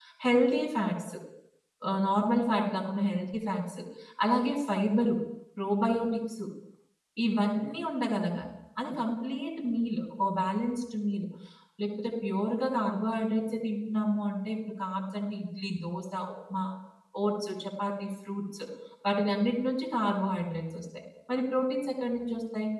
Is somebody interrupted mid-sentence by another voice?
No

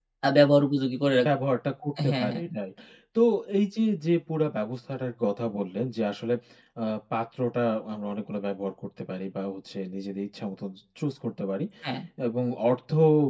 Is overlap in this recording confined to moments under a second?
Yes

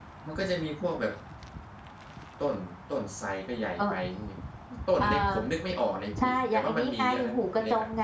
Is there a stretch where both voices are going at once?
Yes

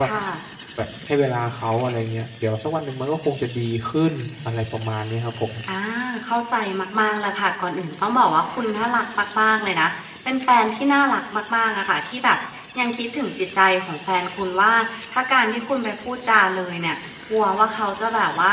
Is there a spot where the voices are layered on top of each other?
No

